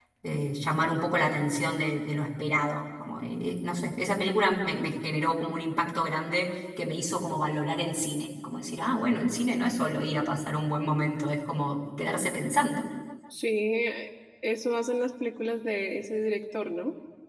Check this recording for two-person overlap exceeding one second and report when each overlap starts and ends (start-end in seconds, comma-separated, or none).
none